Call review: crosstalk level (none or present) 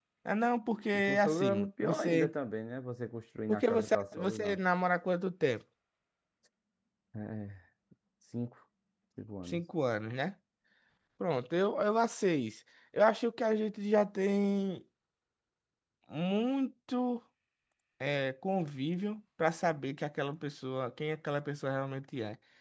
present